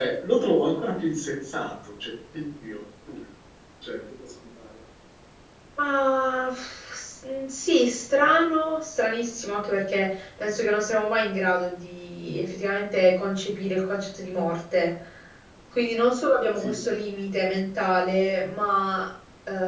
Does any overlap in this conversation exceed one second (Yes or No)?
No